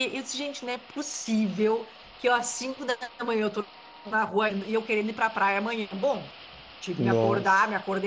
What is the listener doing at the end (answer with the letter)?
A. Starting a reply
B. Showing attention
B